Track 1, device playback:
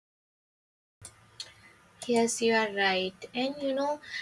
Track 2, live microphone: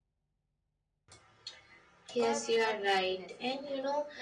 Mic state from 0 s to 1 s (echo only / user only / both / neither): neither